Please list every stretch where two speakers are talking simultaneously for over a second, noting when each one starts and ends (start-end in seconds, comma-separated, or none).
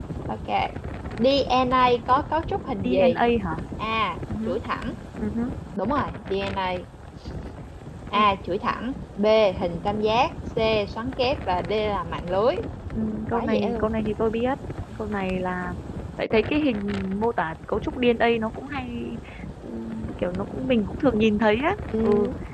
none